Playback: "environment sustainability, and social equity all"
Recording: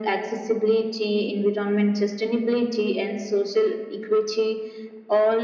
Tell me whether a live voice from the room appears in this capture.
No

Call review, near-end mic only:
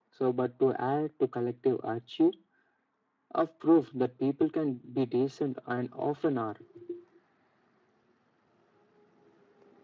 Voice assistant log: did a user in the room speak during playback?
No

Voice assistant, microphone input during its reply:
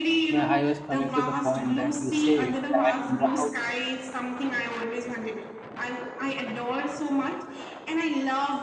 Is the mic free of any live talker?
No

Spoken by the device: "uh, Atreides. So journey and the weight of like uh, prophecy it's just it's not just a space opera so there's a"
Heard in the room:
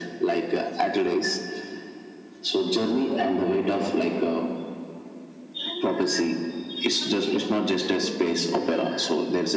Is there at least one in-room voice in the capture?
No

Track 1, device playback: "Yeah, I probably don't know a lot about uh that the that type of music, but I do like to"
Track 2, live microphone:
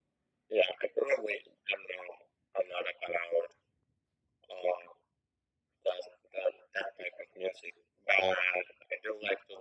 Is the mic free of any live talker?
Yes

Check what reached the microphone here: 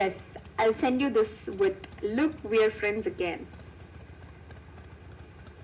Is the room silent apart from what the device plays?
Yes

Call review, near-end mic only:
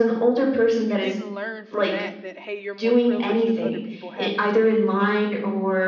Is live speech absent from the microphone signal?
No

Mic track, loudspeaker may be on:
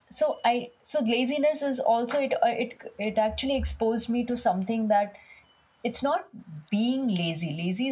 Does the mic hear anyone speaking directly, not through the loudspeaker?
Yes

